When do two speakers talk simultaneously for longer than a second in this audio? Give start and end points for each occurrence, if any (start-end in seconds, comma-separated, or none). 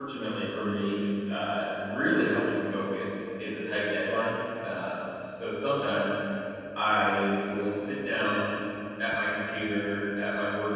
none